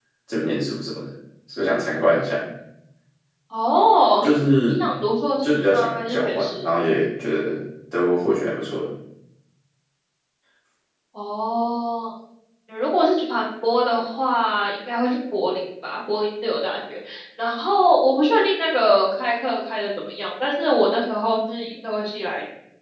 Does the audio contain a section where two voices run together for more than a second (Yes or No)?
Yes